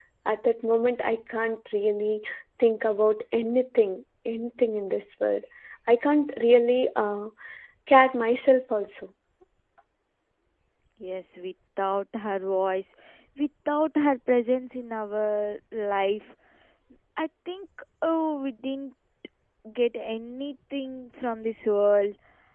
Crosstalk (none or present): none